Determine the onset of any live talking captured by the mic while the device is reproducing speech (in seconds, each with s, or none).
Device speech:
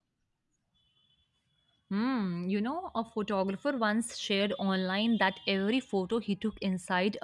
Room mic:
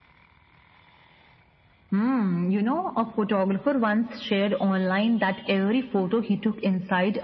none